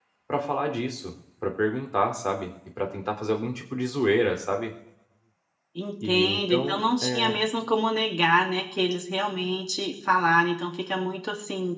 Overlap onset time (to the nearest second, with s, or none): 6 s